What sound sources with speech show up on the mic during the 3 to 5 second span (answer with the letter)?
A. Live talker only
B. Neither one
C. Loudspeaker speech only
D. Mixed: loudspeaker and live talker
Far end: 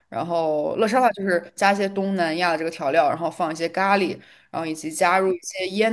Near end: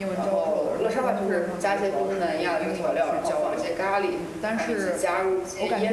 D